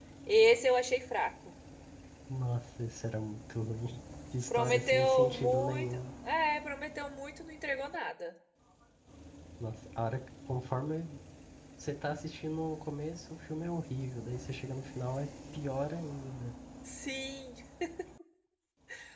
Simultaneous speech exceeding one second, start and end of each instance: 4.5-6.0

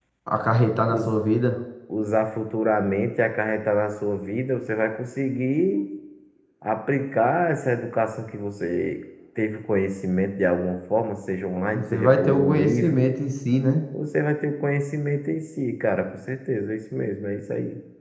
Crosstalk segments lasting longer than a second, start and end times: 11.7-13.1

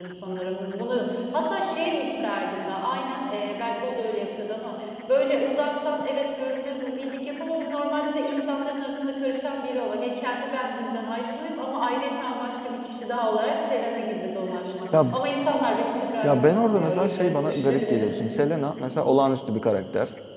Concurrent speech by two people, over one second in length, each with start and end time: 16.2-18.1

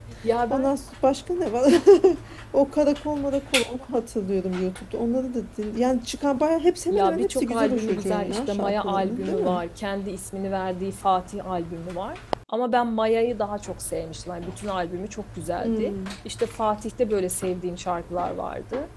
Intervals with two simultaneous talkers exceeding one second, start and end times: 6.9-9.6

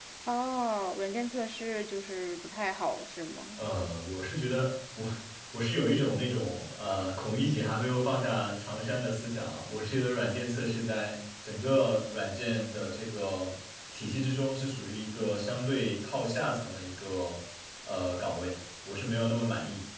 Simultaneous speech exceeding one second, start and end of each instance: none

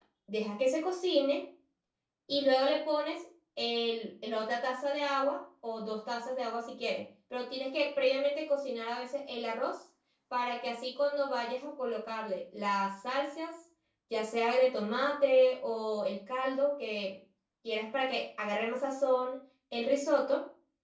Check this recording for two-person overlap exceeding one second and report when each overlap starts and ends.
none

